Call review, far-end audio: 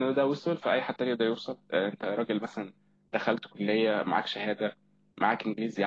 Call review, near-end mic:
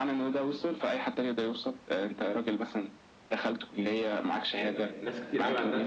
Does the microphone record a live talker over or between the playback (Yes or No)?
Yes